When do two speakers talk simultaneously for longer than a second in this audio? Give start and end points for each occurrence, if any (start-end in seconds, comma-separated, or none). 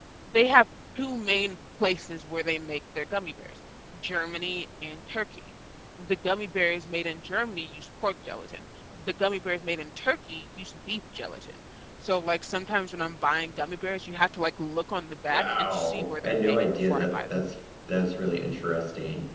15.3-17.3